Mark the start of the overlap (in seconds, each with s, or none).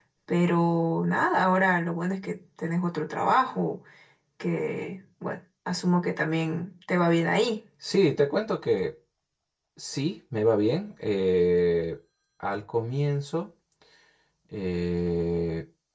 none